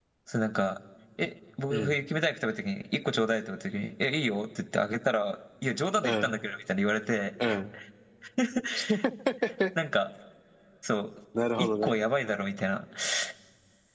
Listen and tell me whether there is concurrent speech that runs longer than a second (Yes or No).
No